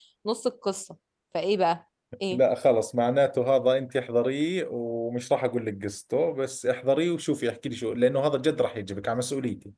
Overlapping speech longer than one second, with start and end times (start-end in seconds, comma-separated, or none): none